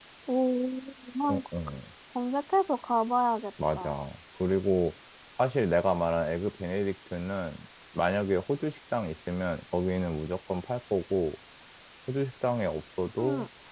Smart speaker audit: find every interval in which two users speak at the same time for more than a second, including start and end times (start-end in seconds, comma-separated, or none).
none